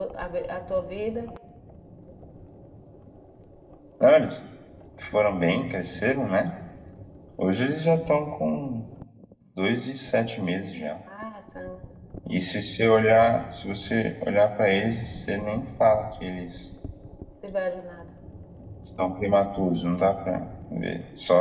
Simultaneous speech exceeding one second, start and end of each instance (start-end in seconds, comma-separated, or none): none